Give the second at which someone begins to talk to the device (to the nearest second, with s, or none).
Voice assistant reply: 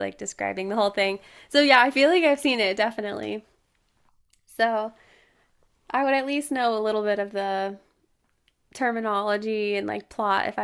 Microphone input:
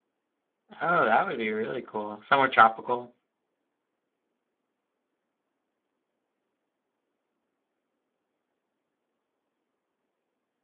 1 s